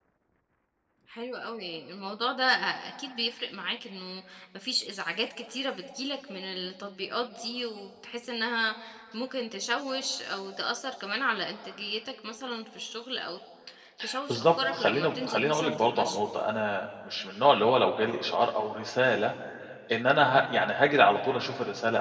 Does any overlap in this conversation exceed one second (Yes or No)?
Yes